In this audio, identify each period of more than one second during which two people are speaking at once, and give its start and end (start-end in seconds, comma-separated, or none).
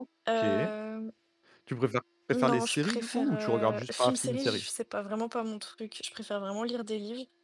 2.3-4.6